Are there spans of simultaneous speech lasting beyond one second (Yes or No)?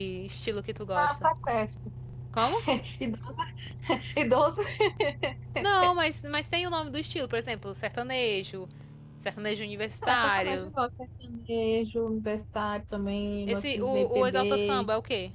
Yes